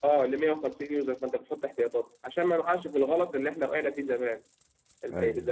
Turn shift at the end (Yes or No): No